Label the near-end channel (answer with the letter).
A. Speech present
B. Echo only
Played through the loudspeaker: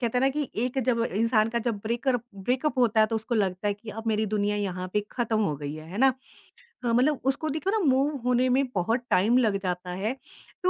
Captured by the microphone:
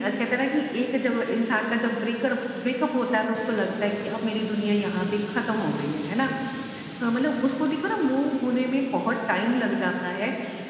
B